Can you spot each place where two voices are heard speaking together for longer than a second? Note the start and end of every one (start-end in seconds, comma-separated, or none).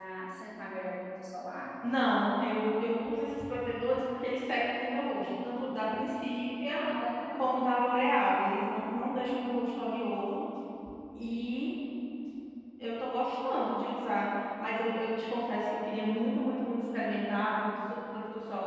none